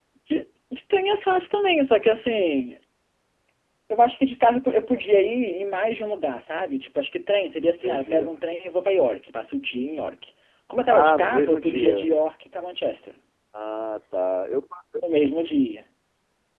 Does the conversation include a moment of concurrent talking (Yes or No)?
Yes